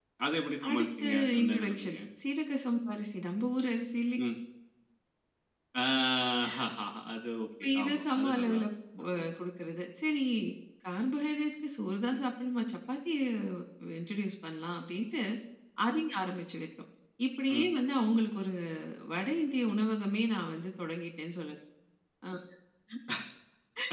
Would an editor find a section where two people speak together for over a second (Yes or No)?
Yes